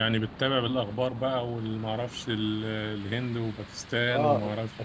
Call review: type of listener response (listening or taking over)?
taking over